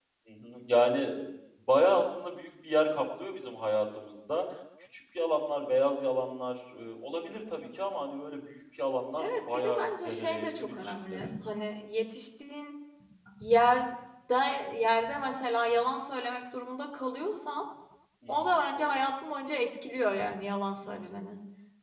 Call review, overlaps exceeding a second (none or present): present